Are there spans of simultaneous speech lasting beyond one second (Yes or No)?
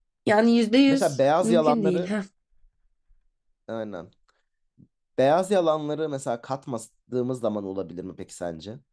Yes